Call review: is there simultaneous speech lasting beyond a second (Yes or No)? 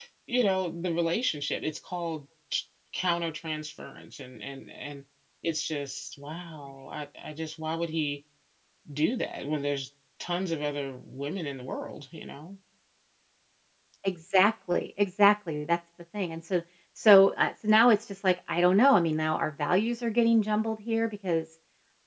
No